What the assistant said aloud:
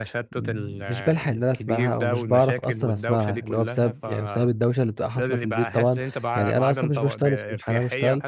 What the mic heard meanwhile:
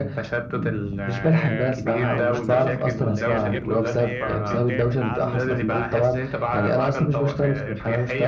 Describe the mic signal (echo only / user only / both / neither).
both